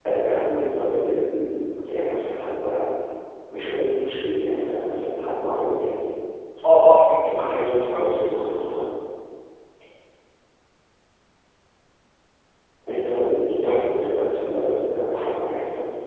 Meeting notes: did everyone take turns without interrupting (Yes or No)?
No